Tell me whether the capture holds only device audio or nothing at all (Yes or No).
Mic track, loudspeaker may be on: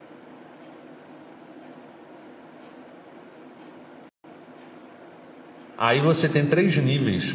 No